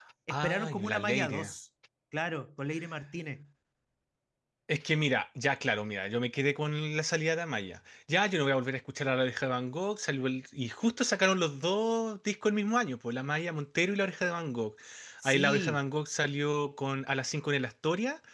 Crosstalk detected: Yes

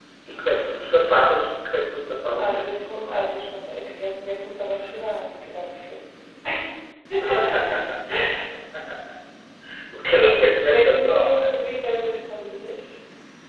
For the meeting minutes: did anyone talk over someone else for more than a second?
Yes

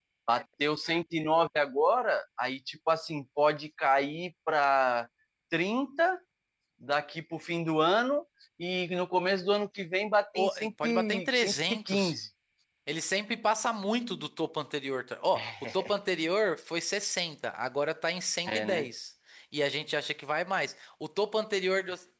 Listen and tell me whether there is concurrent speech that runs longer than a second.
Yes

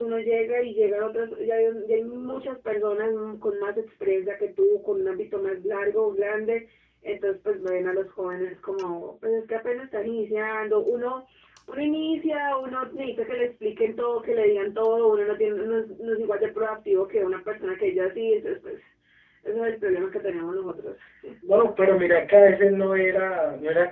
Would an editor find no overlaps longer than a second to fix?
Yes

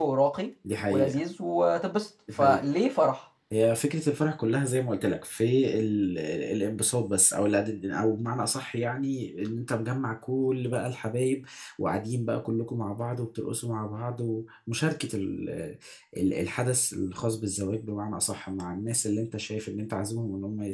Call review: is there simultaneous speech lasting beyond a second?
No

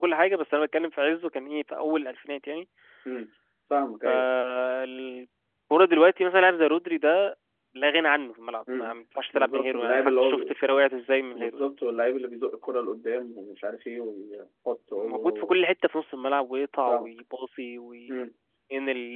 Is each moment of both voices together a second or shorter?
No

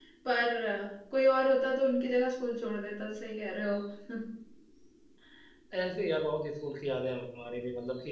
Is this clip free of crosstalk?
Yes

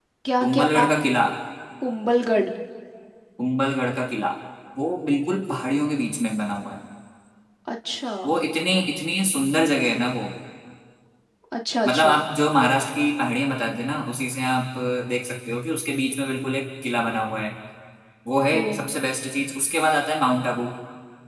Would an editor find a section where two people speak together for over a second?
No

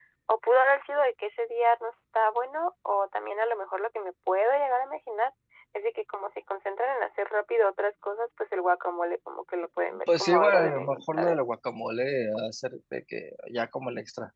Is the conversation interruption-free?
No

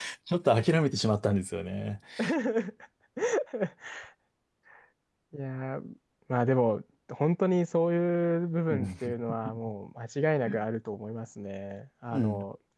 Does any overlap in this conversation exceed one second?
No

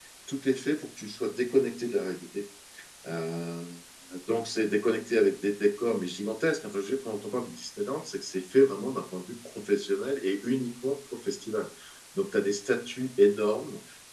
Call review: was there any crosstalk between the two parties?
No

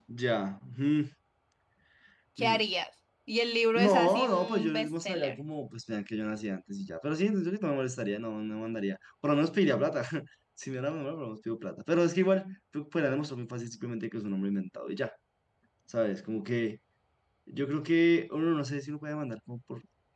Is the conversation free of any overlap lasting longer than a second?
No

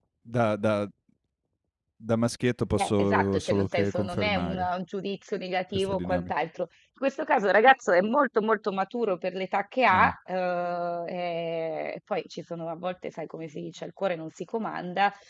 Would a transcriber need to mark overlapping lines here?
Yes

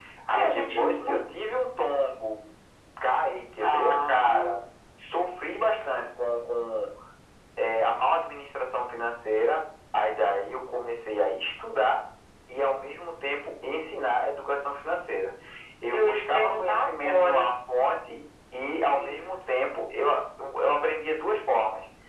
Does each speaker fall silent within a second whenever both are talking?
No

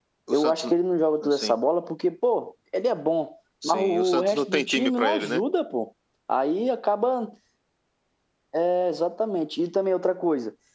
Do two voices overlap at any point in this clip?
Yes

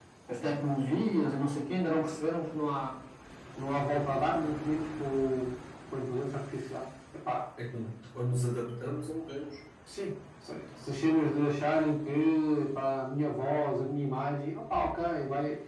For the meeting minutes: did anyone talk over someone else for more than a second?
No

